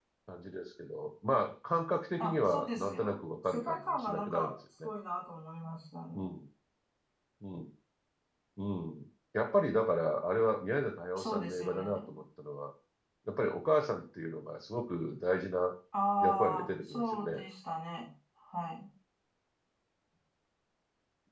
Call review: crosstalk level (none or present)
present